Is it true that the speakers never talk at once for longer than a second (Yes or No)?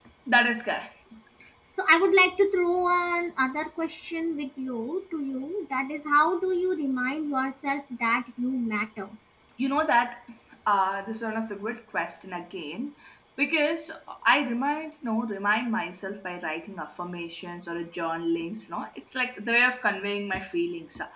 Yes